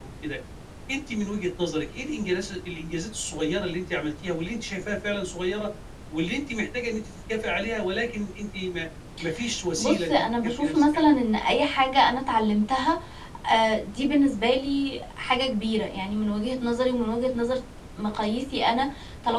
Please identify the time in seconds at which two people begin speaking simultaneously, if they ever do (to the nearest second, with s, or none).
10 s